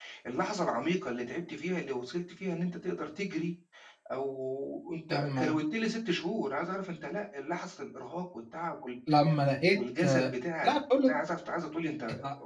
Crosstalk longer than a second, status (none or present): none